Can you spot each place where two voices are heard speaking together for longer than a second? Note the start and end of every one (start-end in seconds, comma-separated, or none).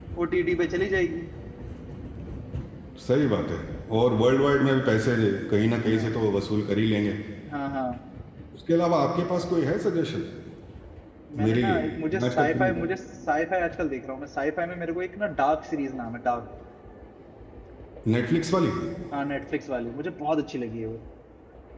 11.4-12.7